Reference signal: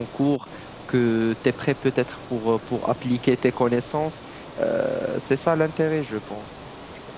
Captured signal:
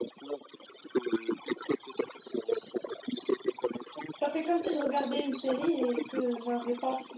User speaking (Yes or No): Yes